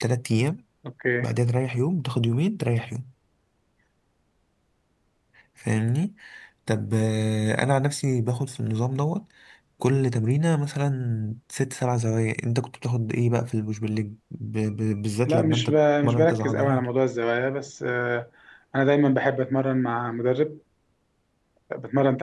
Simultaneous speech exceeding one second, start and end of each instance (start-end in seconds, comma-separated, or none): 15.2-16.9